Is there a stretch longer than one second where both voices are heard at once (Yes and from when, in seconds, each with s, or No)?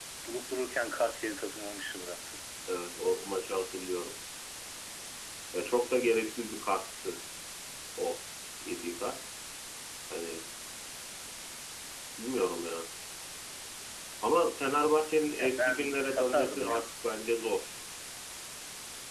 Yes, from 15.4 s